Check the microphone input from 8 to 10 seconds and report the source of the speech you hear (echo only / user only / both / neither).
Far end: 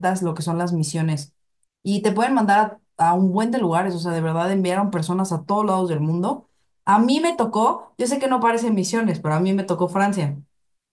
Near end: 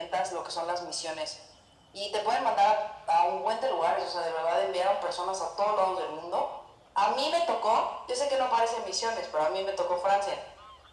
echo only